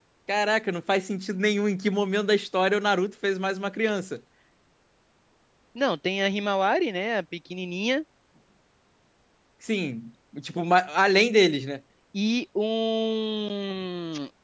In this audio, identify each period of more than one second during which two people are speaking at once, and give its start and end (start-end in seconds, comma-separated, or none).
none